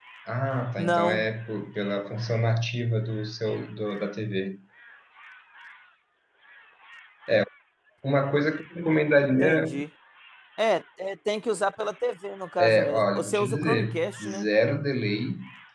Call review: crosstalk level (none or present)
present